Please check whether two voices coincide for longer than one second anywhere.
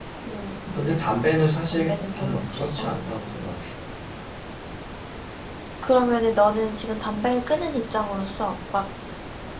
Yes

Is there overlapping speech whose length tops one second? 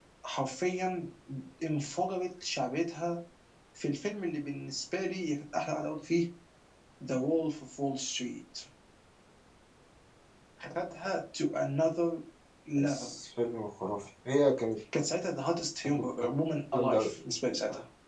No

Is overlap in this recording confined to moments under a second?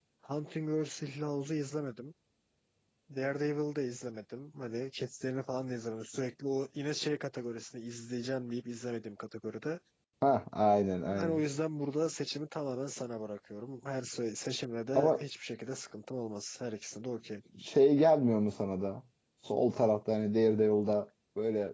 Yes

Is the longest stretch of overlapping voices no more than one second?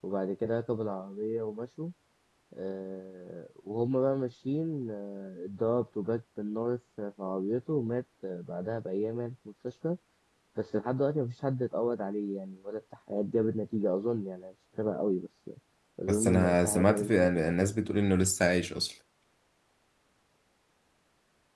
No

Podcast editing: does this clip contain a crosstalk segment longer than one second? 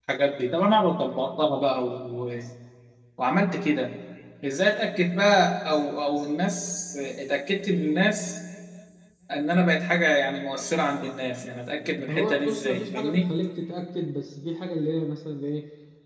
Yes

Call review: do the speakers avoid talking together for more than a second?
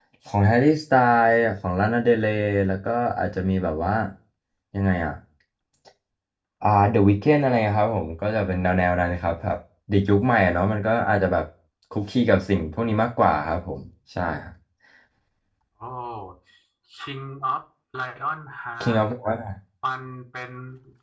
Yes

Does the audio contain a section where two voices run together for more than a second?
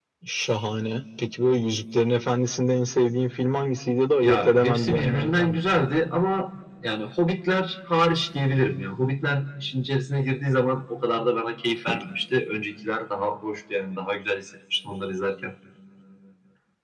Yes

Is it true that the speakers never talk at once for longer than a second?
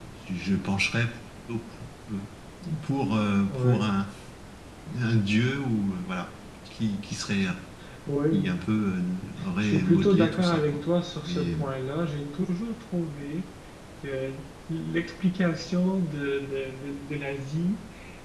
No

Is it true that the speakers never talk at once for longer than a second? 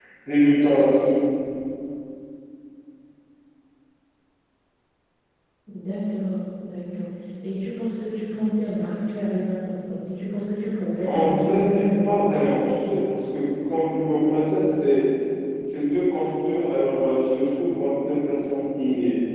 No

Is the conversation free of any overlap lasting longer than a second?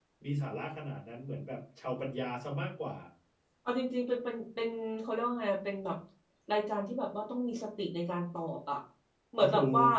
Yes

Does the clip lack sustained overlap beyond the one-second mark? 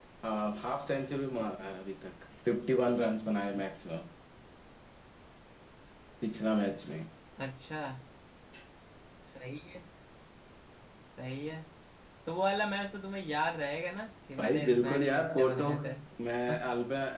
No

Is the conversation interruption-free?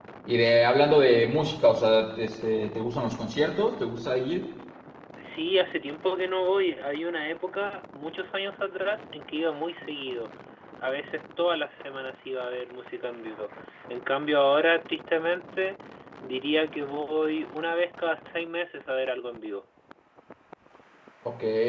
Yes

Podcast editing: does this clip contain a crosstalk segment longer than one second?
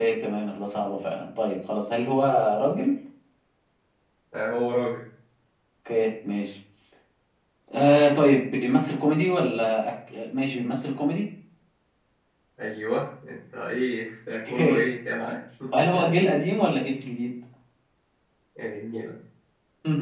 No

